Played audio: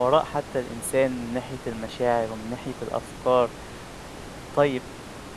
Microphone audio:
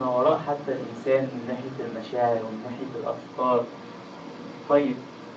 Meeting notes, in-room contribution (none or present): none